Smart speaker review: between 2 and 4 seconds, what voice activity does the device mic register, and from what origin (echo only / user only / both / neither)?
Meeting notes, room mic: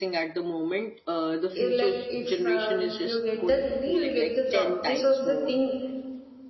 both